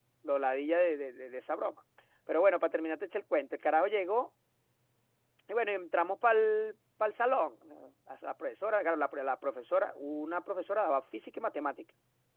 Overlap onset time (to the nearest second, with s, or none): none